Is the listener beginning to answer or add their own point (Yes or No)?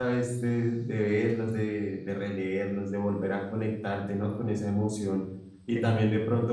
No